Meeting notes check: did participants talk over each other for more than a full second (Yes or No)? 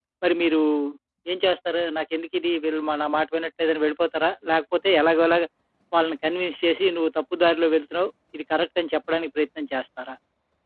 No